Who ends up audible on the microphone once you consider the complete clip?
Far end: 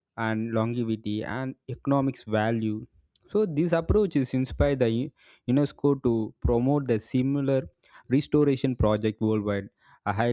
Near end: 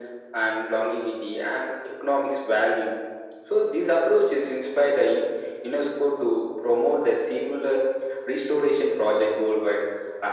echo only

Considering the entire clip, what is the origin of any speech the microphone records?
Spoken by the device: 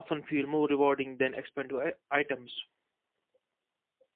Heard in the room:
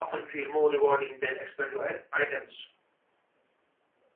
echo only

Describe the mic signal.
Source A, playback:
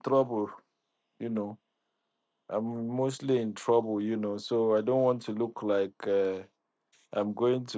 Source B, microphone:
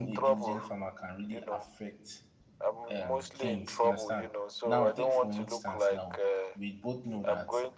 both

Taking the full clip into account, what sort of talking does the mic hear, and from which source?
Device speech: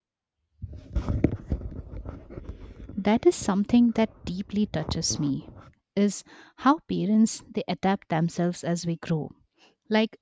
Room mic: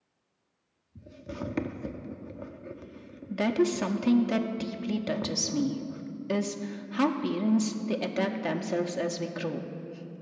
echo only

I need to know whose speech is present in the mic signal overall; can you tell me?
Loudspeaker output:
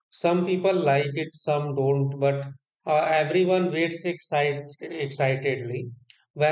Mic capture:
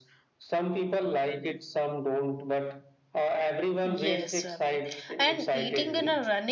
both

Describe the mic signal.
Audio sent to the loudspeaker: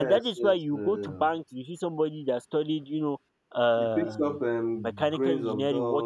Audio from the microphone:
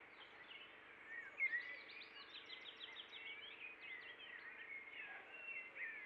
neither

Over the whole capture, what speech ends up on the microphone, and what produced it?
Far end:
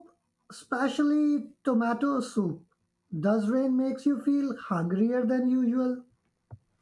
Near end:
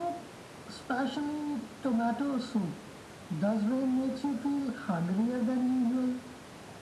echo only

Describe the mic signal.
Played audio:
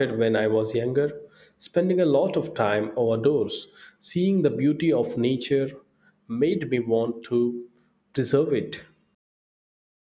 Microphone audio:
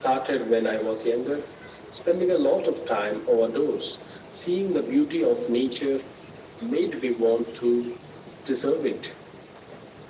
echo only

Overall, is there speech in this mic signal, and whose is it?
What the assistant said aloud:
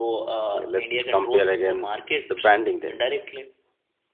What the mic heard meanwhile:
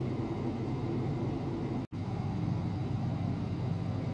neither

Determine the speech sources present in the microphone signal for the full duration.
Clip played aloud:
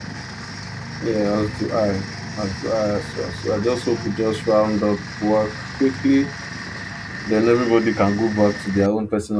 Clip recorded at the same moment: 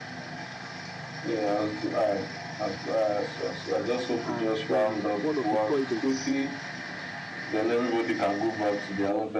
both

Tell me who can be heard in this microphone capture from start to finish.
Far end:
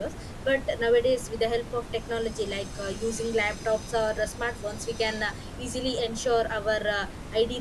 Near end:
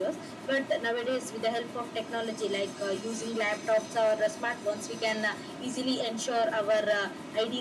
echo only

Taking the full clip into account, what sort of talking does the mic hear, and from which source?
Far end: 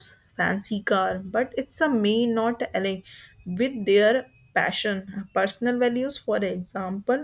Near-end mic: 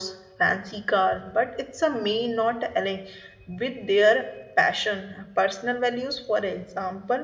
echo only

